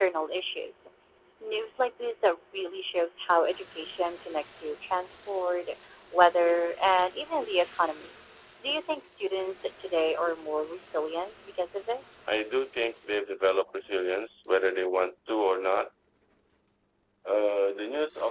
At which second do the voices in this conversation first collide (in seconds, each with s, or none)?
none